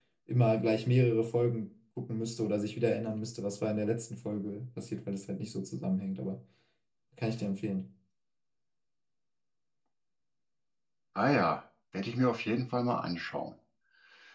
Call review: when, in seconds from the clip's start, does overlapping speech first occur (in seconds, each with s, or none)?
none